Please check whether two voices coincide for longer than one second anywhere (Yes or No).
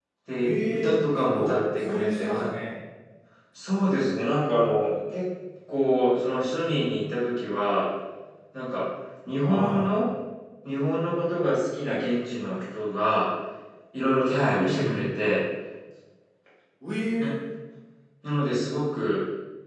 Yes